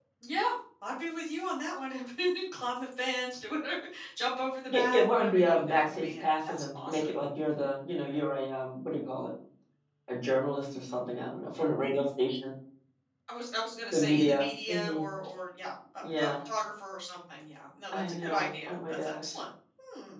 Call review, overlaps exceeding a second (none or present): present